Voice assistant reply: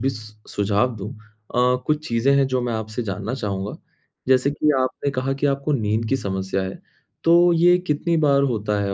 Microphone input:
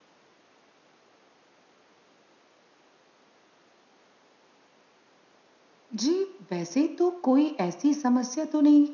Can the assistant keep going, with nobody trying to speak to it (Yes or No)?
No